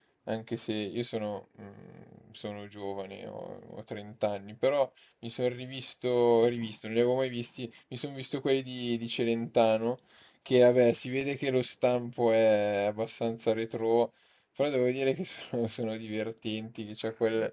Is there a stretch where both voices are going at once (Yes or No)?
No